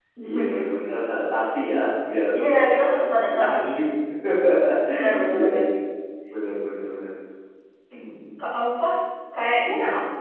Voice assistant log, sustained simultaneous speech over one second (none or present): present